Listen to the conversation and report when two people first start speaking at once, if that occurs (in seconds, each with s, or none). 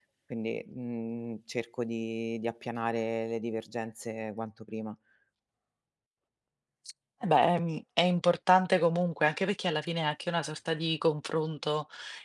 none